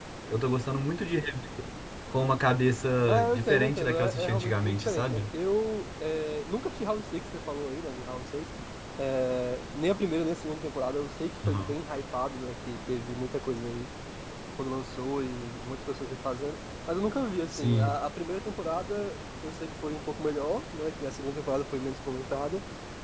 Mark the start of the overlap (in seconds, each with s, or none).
3.1 s